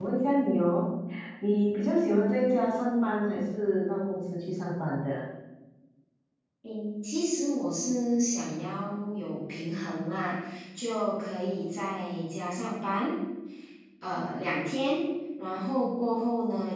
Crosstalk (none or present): none